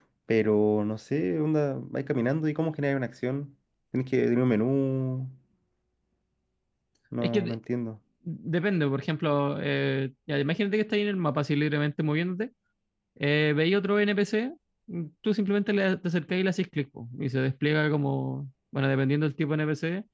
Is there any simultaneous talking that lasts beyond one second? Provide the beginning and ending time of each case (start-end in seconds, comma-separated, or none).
none